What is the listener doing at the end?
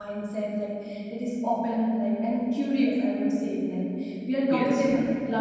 listening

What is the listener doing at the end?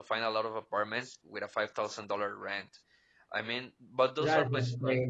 taking over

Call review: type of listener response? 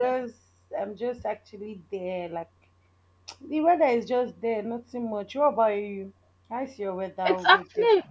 taking over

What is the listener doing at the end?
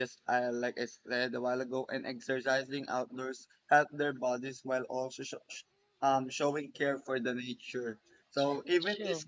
listening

